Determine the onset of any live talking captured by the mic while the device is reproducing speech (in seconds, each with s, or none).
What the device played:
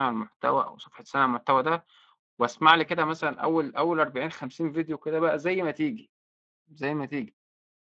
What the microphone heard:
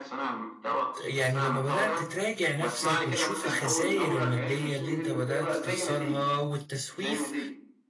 1.0 s